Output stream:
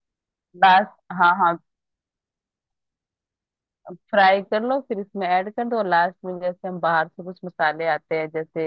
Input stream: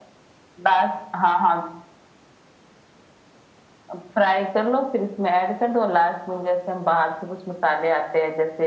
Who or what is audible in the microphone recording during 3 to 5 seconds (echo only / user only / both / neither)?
echo only